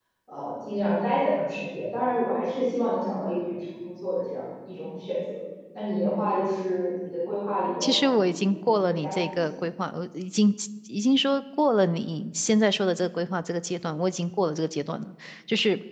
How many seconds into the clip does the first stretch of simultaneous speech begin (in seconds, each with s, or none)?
7.8 s